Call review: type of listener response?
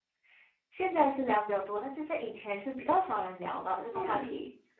taking over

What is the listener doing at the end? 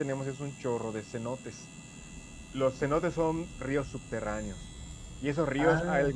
listening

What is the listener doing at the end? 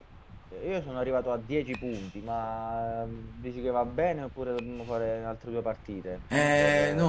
taking over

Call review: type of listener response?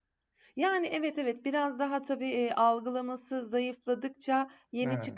listening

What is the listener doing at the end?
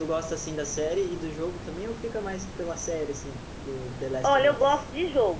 taking over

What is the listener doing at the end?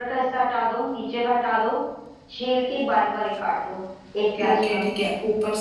taking over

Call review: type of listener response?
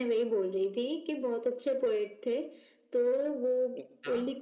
listening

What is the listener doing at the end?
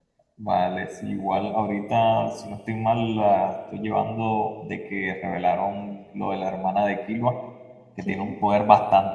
listening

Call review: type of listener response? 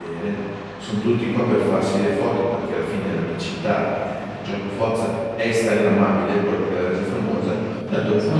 listening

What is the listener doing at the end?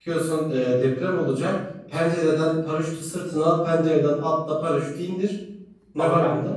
taking over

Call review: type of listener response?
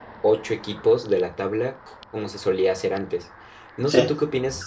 listening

